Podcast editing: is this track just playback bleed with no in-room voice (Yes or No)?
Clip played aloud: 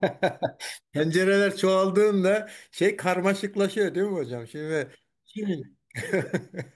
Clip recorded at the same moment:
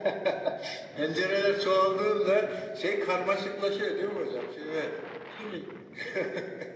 Yes